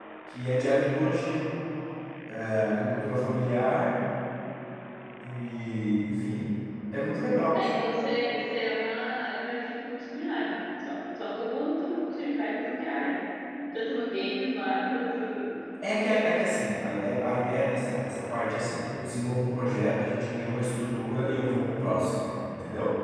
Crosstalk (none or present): none